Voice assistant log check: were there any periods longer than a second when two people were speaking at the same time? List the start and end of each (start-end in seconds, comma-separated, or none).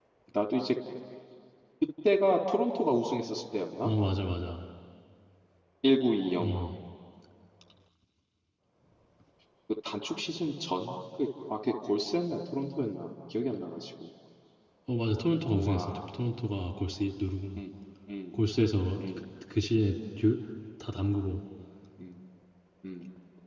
none